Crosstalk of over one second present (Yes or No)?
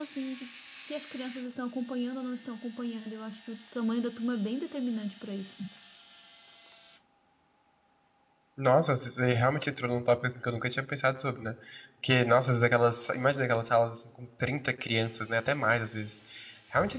No